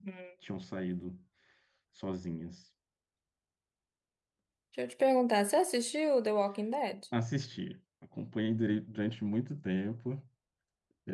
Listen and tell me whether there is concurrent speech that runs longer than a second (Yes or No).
No